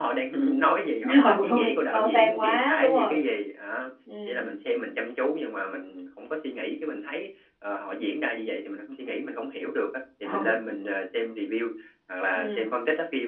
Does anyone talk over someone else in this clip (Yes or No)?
Yes